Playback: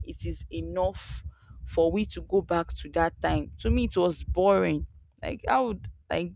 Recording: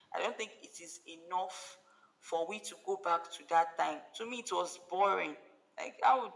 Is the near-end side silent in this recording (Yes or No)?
Yes